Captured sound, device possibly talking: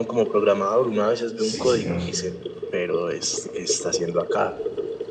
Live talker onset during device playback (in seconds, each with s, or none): 1.3 s